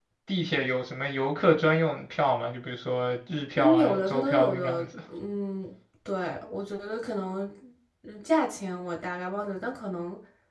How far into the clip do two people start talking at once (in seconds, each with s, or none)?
3.5 s